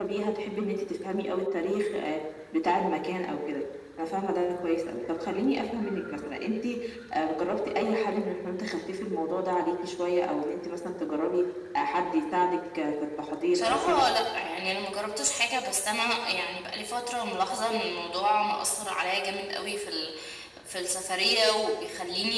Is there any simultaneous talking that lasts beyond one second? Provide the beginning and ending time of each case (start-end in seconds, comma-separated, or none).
none